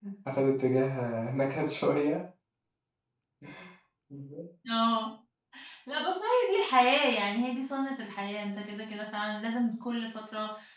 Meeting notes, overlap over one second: none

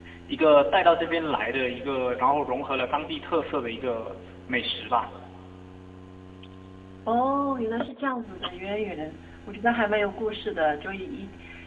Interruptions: none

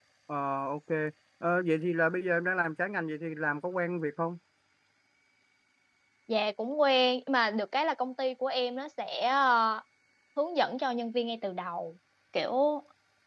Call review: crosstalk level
none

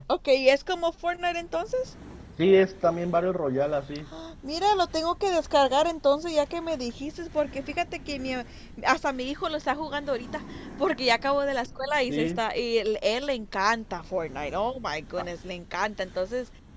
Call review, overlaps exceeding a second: none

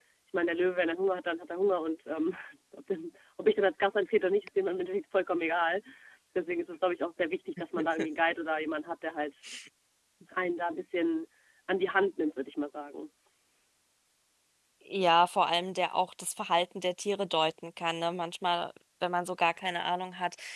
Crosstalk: none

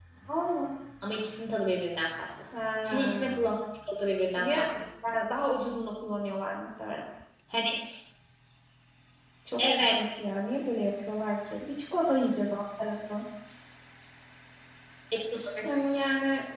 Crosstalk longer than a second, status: none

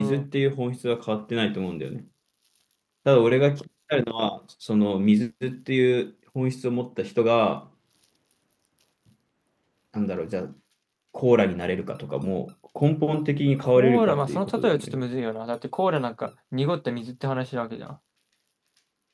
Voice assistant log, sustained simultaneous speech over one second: present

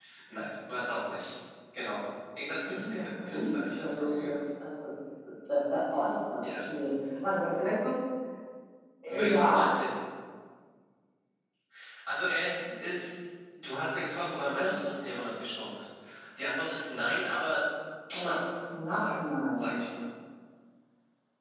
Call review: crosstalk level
present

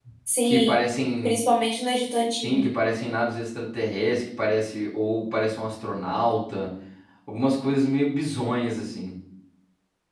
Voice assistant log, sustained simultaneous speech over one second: none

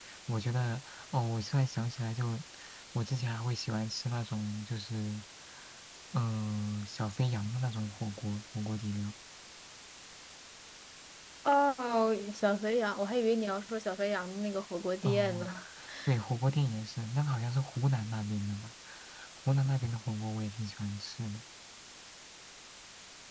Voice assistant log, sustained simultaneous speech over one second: none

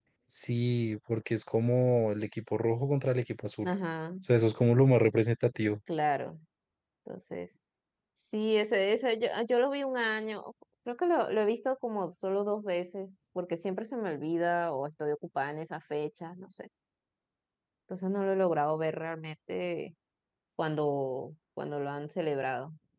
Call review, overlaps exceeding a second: none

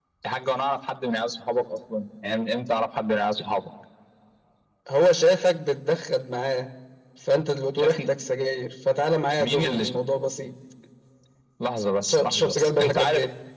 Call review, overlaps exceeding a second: present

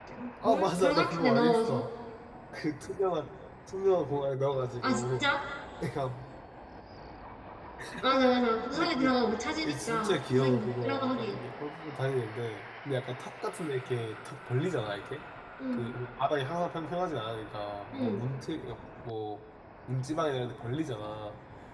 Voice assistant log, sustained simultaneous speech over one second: present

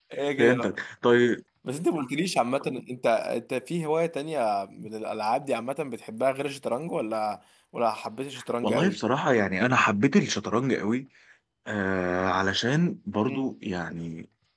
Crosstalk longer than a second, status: none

